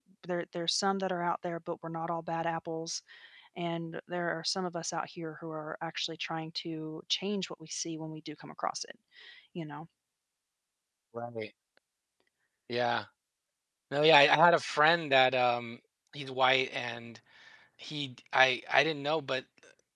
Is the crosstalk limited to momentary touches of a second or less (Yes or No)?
Yes